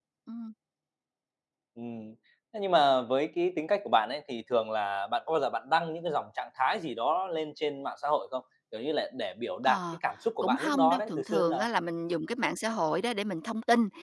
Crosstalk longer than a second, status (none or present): present